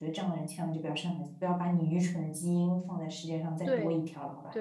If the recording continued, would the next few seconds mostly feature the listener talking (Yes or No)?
Yes